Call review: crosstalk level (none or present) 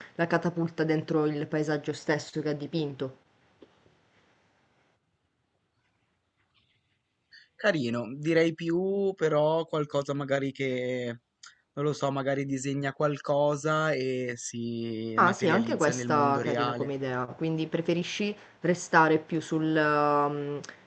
present